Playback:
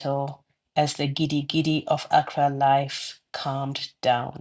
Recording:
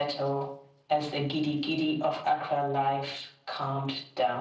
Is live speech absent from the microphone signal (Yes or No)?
Yes